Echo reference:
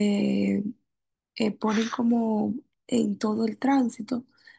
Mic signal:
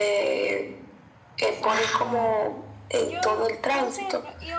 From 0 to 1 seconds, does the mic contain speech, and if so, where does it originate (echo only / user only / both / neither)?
echo only